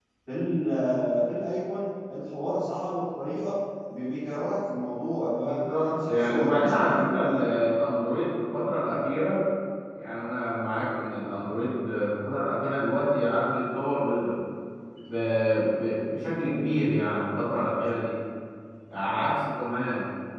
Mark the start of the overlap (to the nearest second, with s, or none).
5 s